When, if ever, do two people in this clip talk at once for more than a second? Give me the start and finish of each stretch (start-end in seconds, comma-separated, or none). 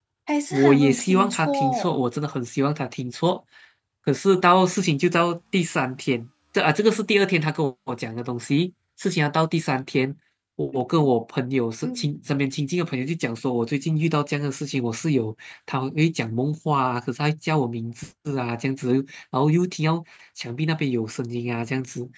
0.5-2.0